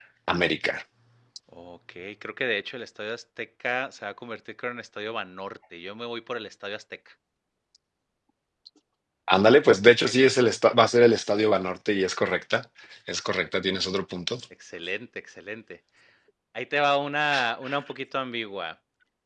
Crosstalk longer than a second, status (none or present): none